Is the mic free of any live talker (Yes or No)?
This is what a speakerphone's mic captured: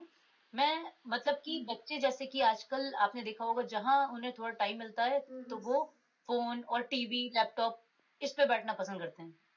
No